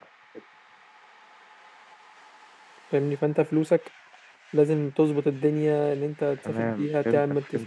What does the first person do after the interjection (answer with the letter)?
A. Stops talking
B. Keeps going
A